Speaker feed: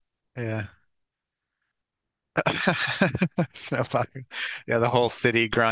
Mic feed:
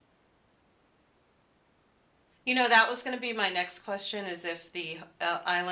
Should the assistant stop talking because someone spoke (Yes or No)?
Yes